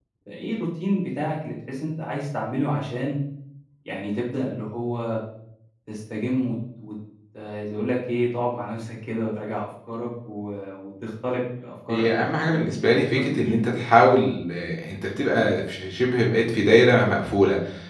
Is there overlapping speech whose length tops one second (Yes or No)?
Yes